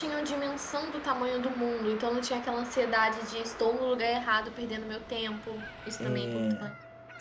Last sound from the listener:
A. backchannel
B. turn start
B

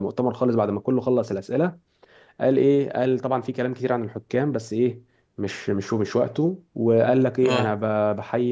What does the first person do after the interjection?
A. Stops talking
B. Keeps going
B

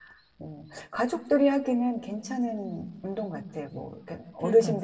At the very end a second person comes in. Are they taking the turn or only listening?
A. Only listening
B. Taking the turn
A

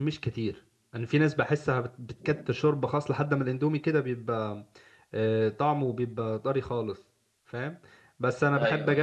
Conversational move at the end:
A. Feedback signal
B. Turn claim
A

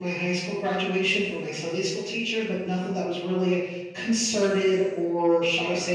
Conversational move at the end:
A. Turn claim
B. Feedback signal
A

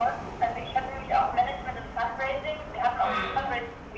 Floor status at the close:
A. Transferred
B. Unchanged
B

